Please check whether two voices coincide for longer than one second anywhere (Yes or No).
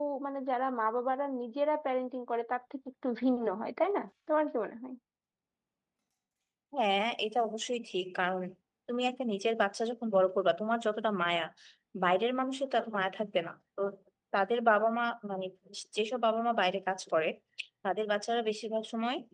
No